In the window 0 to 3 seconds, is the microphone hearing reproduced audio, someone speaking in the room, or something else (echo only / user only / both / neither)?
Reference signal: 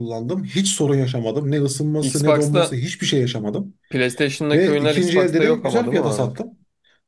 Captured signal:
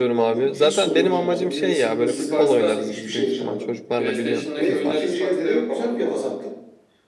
both